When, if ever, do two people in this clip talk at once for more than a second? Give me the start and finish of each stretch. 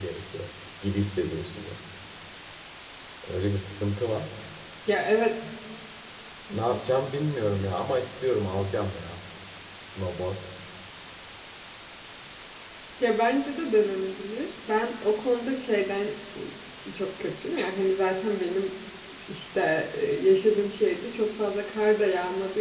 none

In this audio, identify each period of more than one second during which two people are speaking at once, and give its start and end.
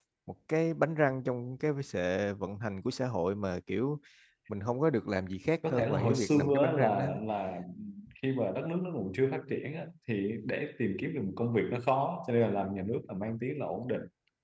5.7-7.0

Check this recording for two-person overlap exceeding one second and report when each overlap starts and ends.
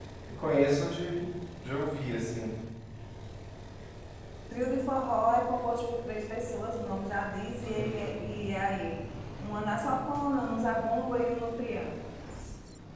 none

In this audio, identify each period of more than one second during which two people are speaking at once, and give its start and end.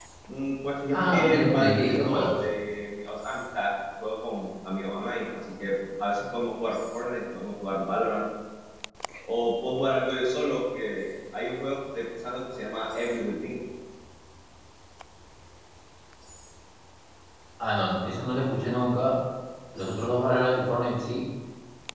0.9-2.4

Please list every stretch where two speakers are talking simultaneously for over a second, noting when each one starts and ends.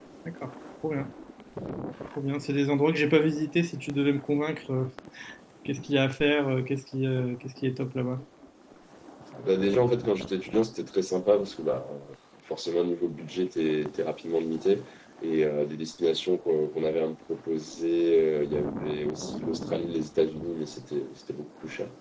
none

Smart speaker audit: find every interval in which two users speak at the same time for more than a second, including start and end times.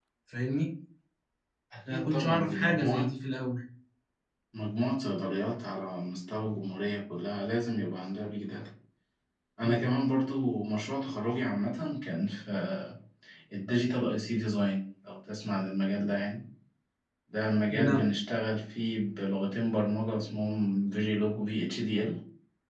1.9-3.1

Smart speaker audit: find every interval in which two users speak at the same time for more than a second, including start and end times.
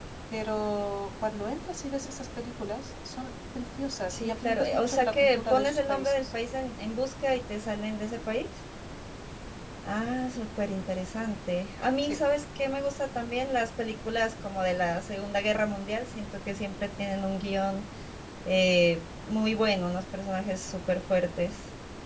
4.1-6.2

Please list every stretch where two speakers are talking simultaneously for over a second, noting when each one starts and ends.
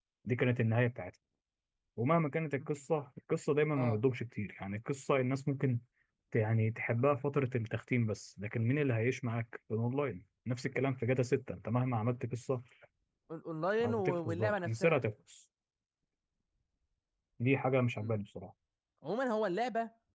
13.8-15.1

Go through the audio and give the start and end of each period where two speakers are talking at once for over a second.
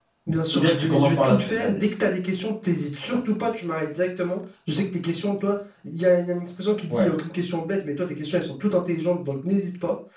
0.5-1.8

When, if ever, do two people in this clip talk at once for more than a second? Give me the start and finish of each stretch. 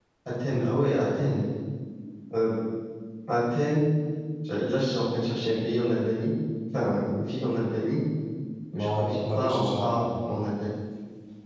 8.8-10.0

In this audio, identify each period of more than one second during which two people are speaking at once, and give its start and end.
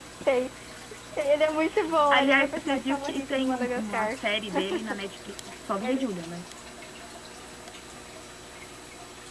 2.1-4.2

